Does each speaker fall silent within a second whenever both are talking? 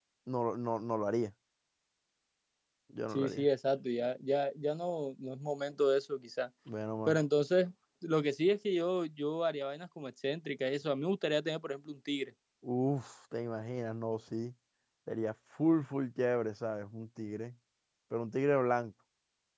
Yes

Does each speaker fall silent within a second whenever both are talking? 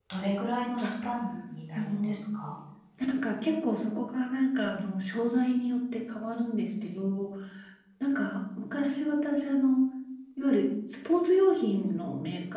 Yes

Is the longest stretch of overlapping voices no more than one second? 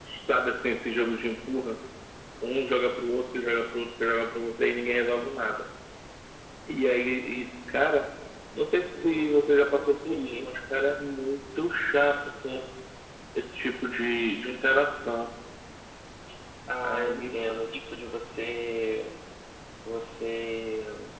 No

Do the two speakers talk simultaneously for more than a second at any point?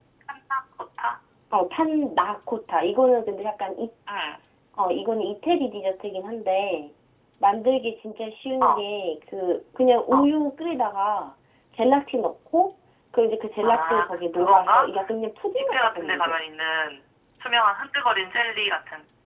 Yes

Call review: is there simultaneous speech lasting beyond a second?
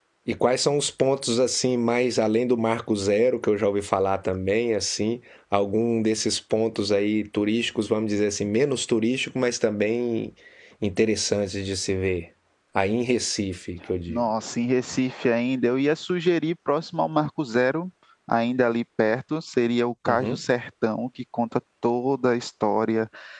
No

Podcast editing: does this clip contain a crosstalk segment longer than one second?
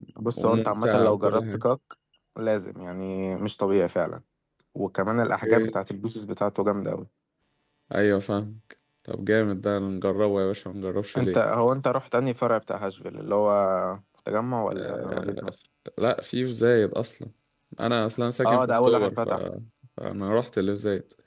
Yes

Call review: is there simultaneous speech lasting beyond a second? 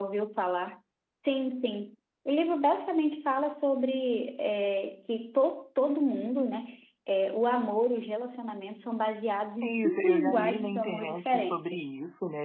Yes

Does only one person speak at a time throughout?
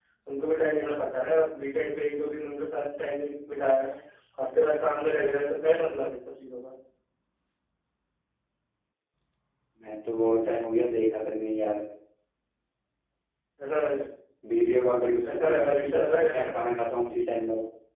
No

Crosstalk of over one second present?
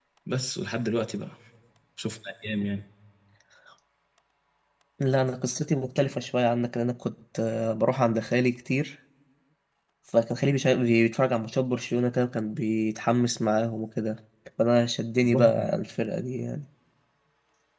No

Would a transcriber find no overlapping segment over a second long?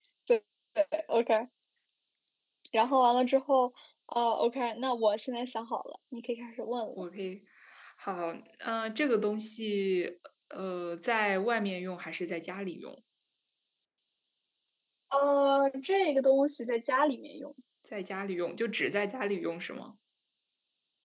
Yes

